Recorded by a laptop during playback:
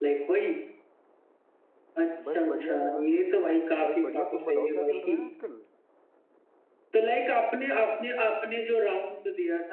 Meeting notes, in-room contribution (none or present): present